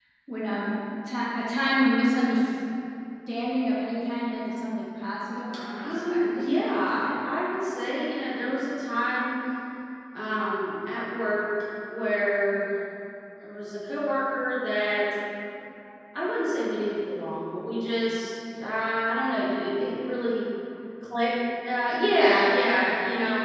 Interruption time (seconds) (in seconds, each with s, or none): 5.8 s